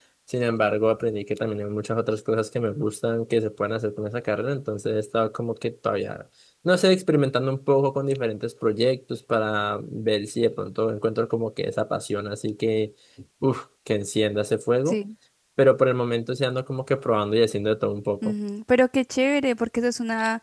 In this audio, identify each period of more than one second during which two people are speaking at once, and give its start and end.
none

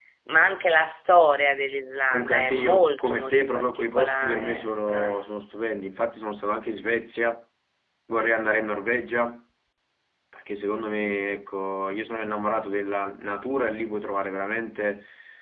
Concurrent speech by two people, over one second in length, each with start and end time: 2.1-5.2

